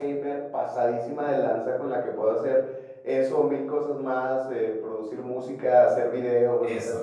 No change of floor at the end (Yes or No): No